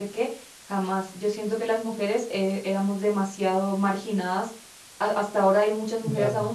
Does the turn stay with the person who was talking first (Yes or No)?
Yes